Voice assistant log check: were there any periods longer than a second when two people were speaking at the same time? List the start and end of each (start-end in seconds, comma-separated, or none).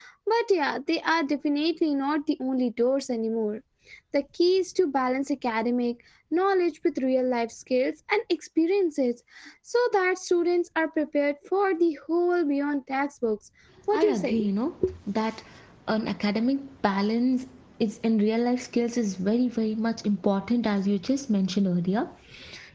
none